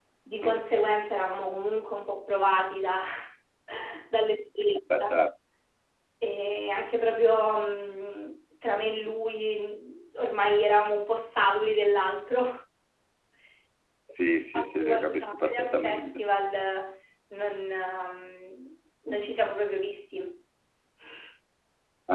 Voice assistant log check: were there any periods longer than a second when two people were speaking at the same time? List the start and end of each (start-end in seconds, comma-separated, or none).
14.5-16.2